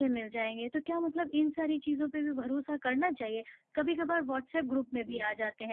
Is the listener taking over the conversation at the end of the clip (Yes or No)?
No